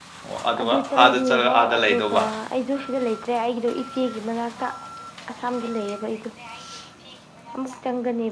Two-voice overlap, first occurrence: 0.6 s

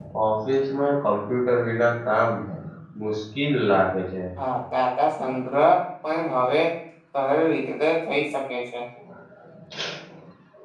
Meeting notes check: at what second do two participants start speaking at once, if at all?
none

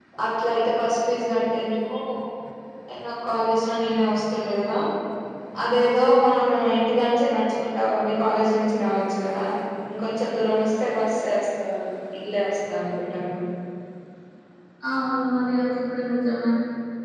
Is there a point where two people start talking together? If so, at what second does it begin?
none

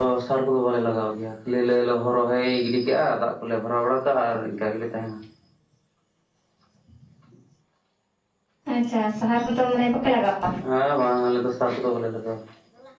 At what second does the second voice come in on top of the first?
none

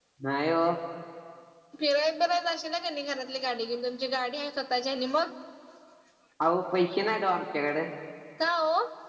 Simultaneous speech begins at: none

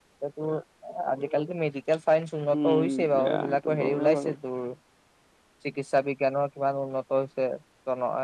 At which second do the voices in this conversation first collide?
2.5 s

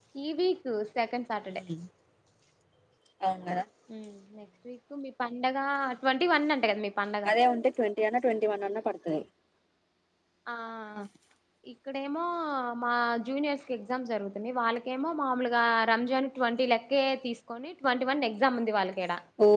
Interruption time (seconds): none

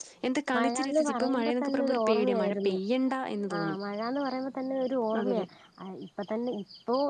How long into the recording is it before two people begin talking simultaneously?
0.5 s

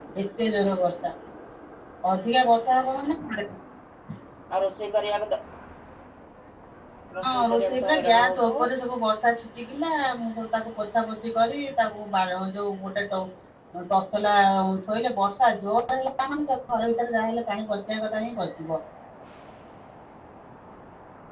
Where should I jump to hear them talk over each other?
7.2 s

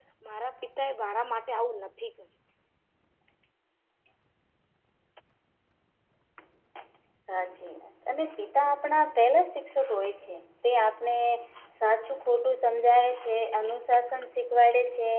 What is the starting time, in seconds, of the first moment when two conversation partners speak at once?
none

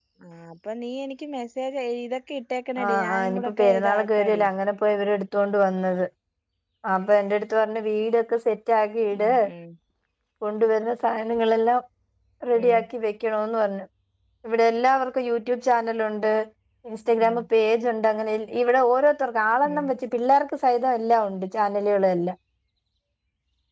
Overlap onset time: 2.8 s

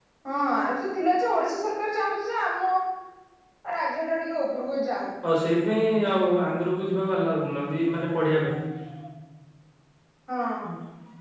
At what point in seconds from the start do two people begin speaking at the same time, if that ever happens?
none

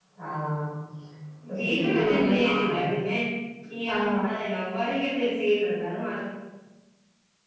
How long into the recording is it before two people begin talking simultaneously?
1.6 s

